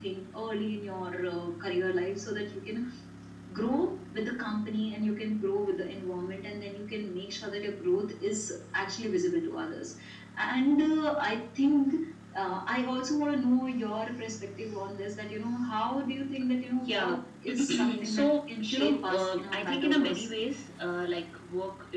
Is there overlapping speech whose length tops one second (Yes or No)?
Yes